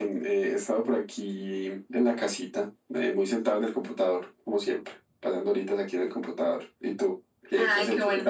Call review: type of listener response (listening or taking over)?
taking over